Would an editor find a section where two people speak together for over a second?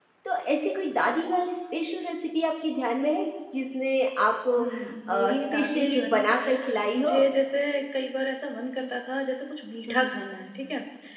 Yes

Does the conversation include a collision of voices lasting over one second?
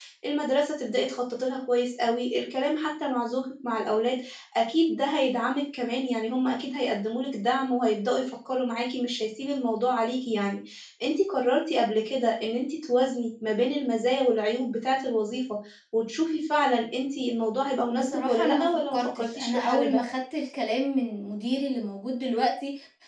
Yes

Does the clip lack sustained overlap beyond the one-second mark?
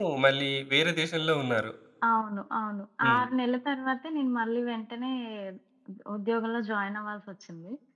Yes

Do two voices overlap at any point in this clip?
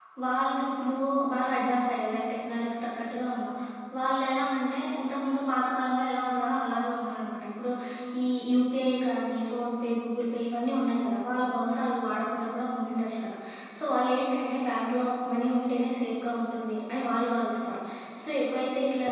No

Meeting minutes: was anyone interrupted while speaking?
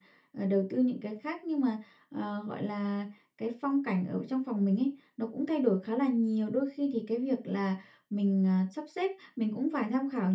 No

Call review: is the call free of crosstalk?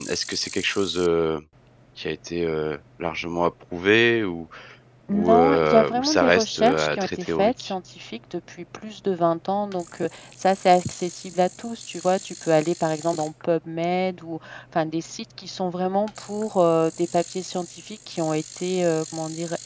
No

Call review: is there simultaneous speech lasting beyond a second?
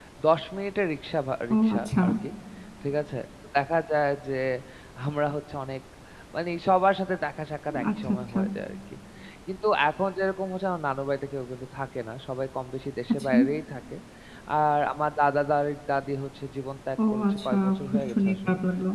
Yes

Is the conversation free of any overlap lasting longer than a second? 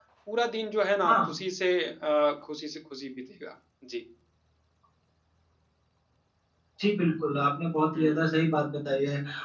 Yes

